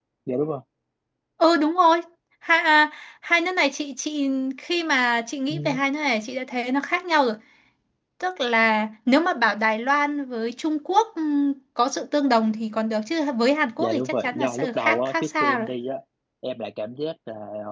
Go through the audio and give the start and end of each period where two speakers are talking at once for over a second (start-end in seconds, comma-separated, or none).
13.8-15.7